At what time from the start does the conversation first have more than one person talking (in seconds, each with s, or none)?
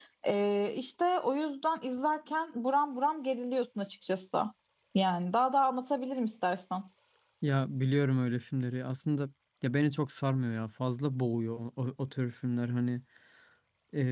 none